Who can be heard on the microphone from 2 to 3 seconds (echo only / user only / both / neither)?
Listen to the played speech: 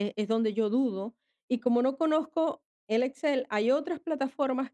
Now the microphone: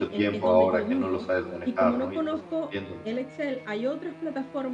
both